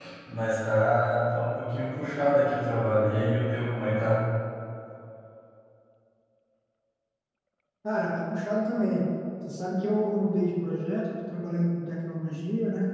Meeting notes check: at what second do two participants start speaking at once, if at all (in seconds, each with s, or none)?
none